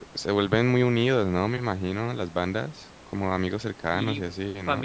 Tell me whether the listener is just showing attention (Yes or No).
No